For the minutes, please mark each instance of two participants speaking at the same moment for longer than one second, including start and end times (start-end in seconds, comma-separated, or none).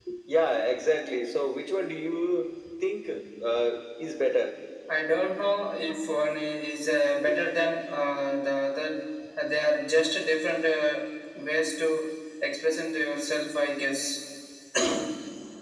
none